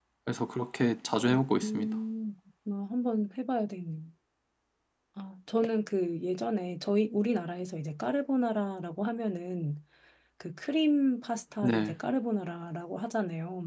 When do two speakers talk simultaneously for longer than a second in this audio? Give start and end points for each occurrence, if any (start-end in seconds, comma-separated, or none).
none